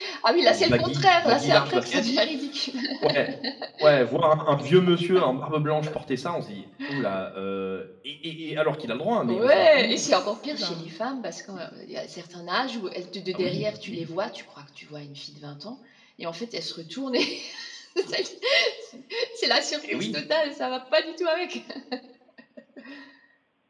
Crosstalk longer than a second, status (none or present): present